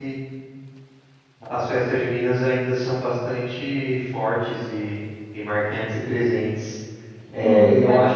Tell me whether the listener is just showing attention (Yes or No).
No